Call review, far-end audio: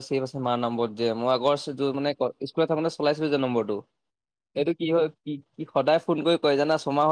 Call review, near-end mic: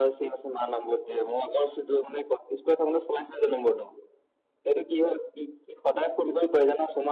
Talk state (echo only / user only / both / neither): echo only